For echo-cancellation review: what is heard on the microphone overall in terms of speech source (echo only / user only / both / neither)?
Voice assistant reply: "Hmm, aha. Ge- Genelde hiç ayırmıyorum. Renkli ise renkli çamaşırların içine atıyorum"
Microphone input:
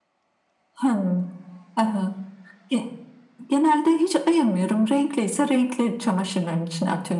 echo only